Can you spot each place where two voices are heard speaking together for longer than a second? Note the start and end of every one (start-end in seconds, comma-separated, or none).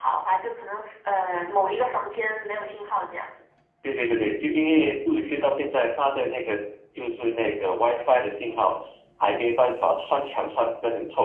none